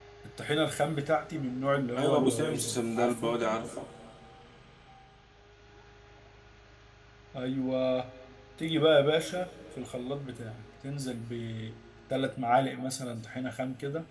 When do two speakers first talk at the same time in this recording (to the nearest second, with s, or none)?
2 s